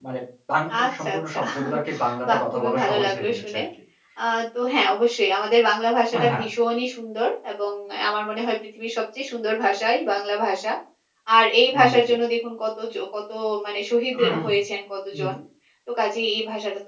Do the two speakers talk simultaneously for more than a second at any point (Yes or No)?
Yes